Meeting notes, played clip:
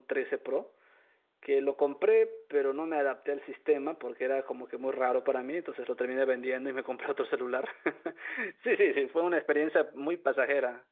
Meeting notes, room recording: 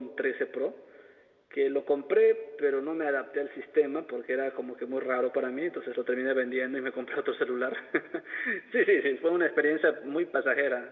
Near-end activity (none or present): none